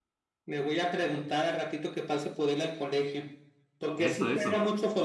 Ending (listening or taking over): listening